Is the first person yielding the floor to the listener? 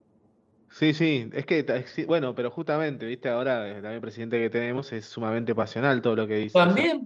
Yes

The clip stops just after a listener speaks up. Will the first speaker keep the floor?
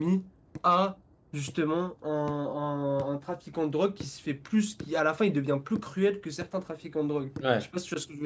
No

